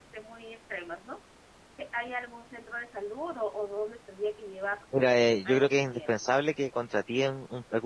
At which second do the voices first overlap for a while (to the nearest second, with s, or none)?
5 s